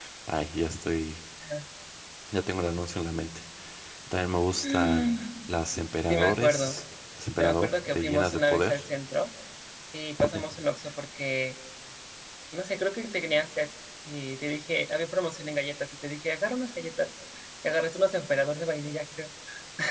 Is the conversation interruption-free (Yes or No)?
No